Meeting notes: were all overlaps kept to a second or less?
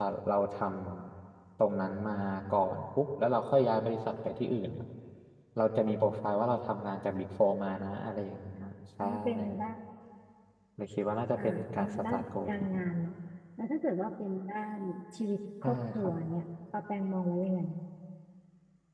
No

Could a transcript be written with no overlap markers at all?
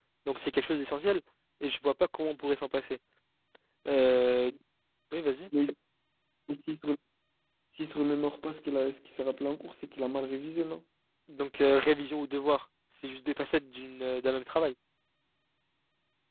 Yes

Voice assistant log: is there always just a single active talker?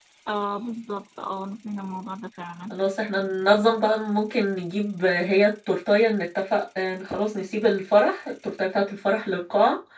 Yes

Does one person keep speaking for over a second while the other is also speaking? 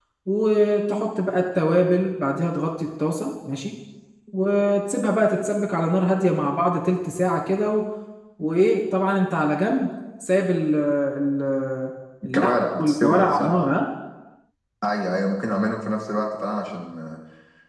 Yes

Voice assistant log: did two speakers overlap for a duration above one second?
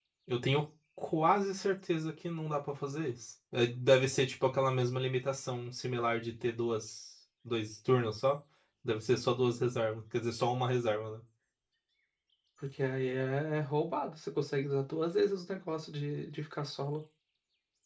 No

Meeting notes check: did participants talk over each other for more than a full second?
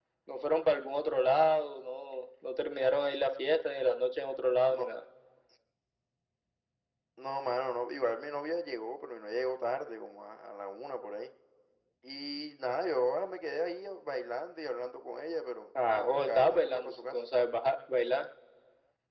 Yes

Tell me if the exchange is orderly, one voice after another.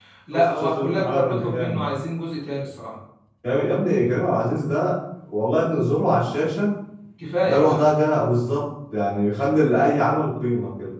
No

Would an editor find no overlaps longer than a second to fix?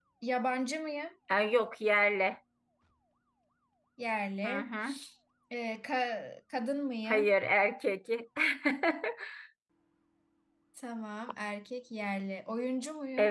Yes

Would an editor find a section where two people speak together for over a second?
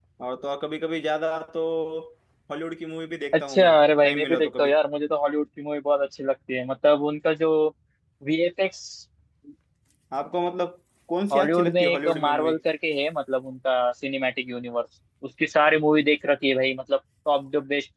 Yes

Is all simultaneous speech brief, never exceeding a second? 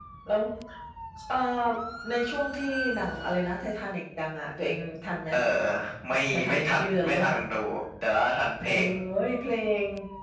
No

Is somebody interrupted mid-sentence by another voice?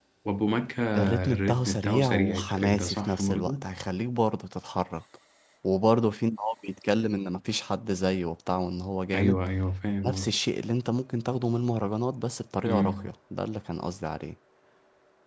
Yes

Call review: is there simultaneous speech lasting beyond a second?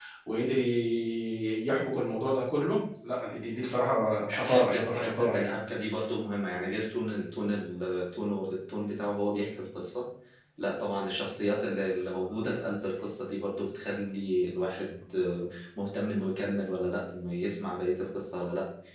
Yes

